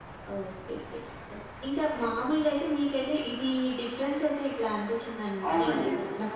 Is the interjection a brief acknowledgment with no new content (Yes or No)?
Yes